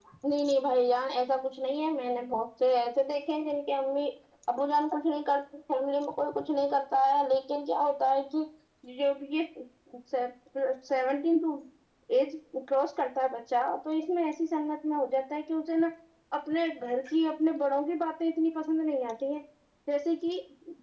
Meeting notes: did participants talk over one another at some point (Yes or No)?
No